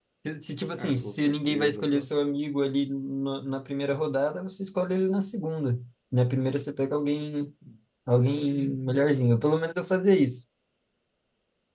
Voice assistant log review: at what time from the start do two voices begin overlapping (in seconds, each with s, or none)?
0.8 s